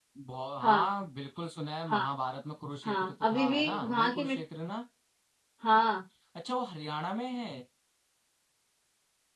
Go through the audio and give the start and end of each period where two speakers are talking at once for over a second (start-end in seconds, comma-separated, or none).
2.9-4.4